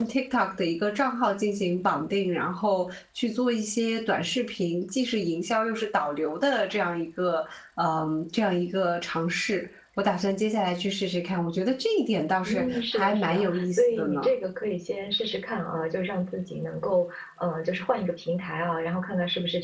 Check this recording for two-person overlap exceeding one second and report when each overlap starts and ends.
12.4-14.3

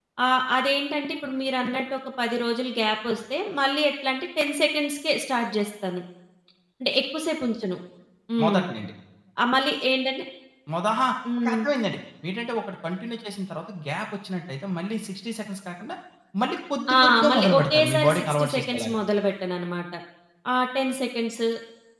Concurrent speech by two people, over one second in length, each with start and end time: 16.9-19.0

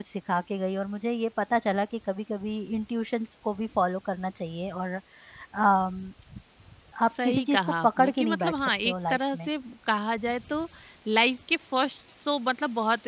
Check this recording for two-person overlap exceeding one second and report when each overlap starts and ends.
7.2-9.5

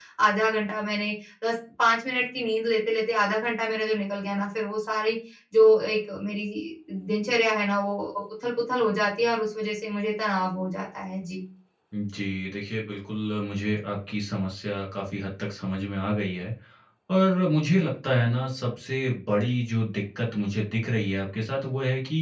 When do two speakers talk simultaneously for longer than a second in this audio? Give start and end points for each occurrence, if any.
none

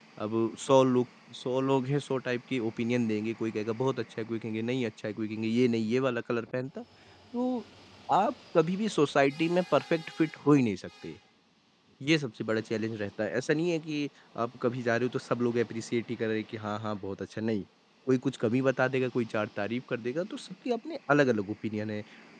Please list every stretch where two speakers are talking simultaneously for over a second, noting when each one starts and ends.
none

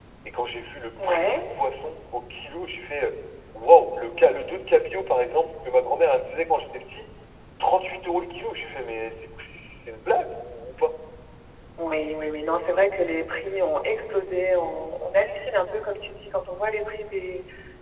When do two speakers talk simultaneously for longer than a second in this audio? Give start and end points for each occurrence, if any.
none

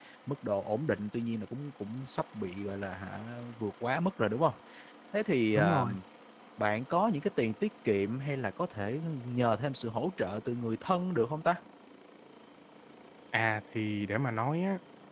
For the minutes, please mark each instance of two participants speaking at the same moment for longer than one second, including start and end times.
none

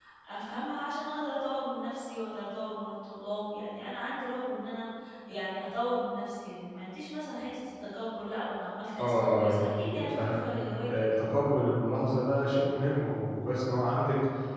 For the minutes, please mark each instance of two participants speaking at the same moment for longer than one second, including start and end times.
9.0-10.4

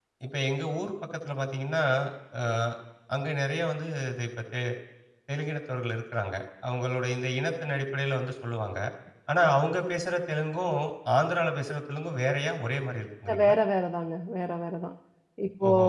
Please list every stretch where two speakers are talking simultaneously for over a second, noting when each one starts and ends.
none

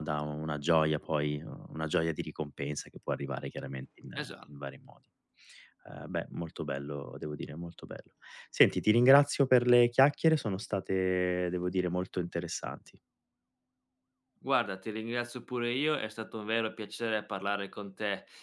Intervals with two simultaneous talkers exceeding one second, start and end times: none

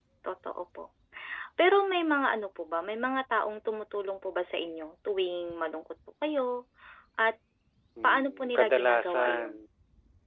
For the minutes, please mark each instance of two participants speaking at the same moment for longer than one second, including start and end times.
8.0-9.5

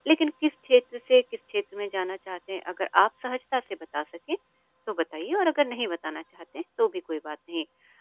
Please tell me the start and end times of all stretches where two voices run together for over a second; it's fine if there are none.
none

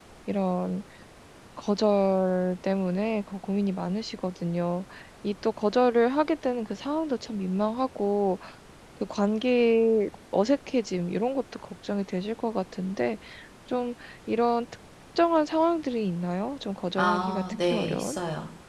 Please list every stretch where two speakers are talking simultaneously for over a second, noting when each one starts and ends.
17.0-18.2

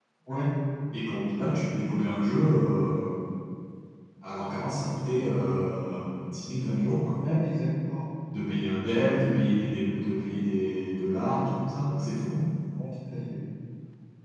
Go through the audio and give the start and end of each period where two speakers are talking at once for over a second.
none

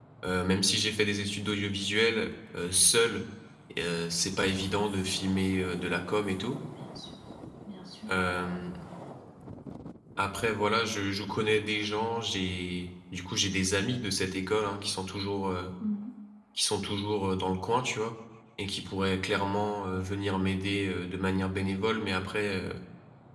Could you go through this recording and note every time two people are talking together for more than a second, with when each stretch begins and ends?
none

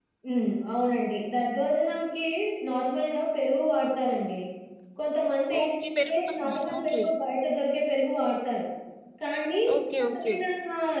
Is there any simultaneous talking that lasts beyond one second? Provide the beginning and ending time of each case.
5.6-7.0

